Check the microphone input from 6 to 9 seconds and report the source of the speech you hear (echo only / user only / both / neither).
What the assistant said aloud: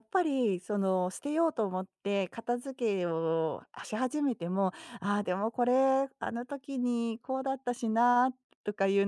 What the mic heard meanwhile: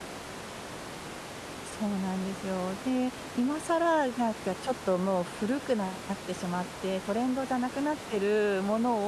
user only